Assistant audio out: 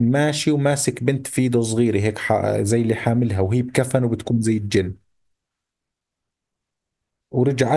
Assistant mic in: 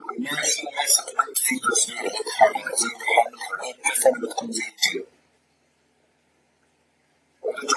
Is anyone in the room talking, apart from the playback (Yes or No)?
No